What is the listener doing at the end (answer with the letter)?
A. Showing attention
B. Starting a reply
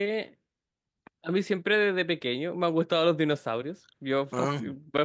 A